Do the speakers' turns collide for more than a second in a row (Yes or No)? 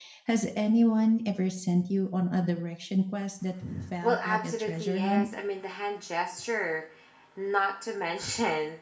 Yes